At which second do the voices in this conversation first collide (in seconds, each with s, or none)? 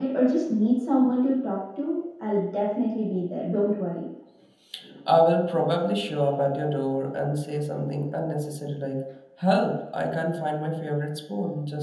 none